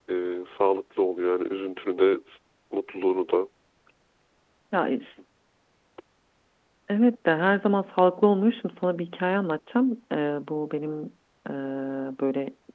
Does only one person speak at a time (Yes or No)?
Yes